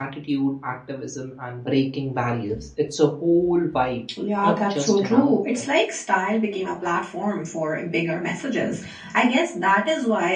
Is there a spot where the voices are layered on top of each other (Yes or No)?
Yes